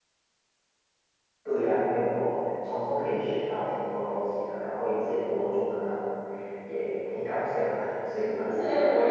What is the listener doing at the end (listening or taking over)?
taking over